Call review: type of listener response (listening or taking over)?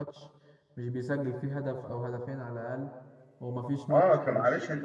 taking over